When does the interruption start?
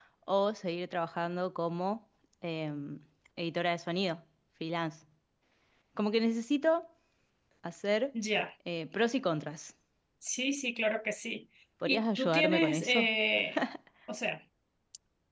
11.8 s

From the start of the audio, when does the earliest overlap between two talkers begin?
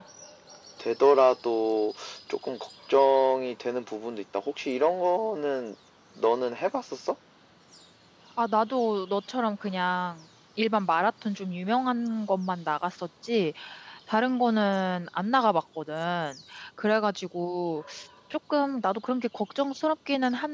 none

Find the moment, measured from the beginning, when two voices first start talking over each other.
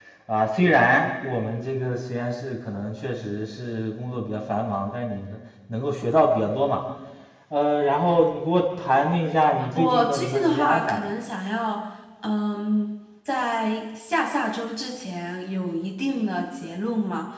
9.6 s

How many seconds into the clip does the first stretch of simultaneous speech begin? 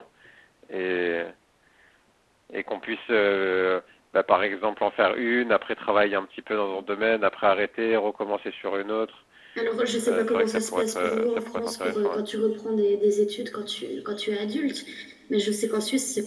10.1 s

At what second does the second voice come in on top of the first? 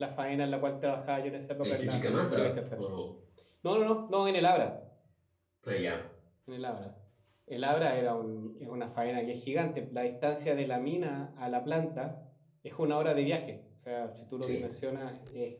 1.6 s

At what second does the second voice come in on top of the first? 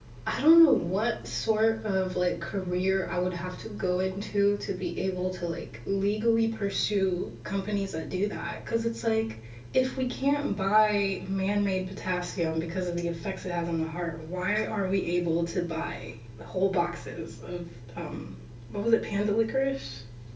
none

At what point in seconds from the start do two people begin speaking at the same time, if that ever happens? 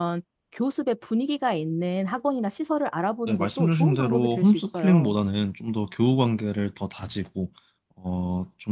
3.3 s

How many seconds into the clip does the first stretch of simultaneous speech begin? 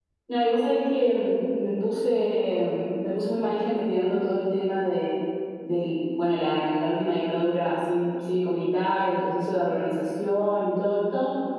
none

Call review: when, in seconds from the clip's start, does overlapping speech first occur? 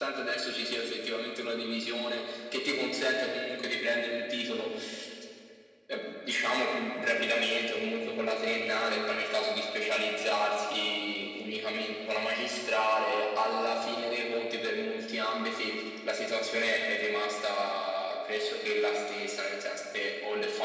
none

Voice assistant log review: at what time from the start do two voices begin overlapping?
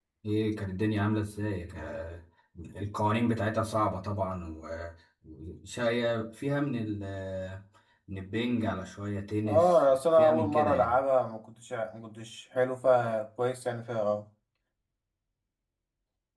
9.5 s

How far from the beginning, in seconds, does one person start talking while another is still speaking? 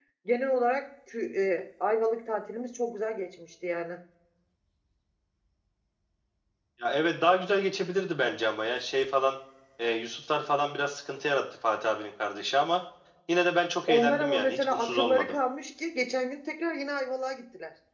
13.9 s

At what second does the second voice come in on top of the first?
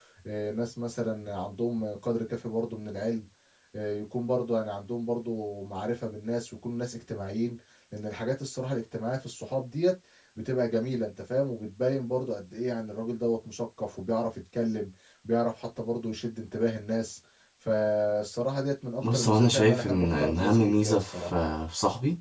19.0 s

